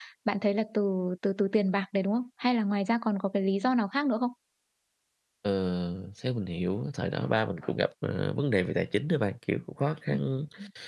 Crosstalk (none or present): none